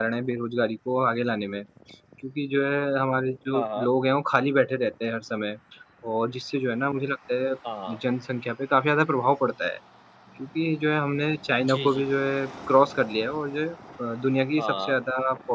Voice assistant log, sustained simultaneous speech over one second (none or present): none